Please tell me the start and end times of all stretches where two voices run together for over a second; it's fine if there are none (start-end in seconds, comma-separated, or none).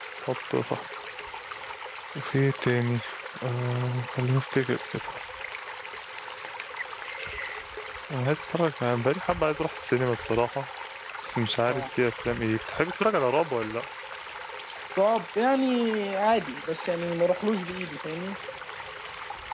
none